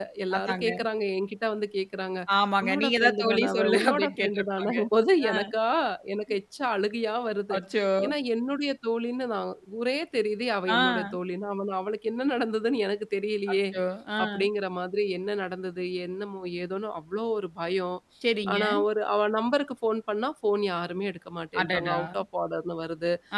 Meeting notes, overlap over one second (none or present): present